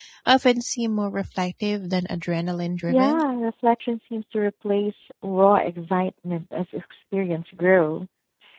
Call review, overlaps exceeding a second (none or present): none